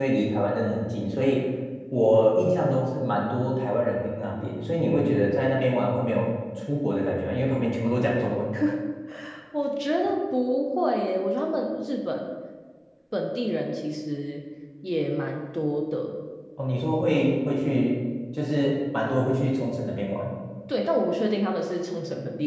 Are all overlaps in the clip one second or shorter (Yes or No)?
Yes